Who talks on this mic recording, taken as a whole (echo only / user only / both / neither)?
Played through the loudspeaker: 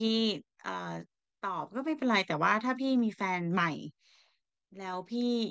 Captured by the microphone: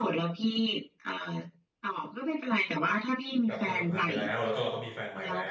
both